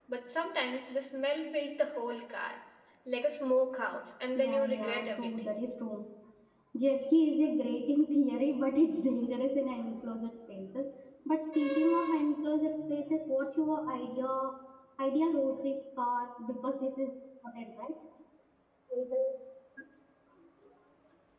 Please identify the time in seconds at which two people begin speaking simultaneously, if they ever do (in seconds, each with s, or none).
4.3 s